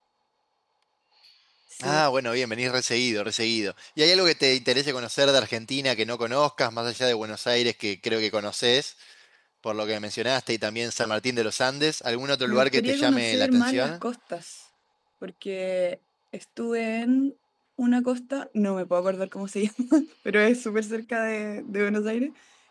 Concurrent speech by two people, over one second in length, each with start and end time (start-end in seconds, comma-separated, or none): 12.5-13.9